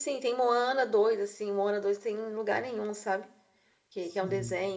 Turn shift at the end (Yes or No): No